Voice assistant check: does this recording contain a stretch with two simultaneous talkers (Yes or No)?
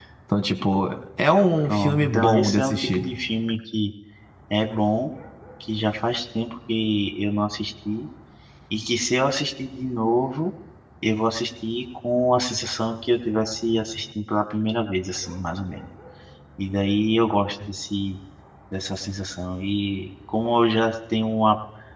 Yes